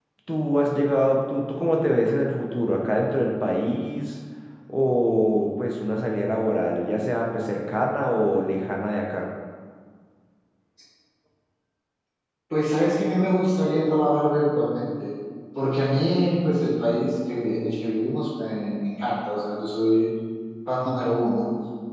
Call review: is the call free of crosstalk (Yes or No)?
Yes